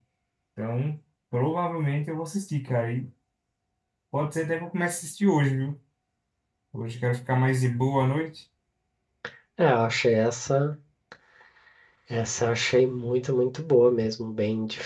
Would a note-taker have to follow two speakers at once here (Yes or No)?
No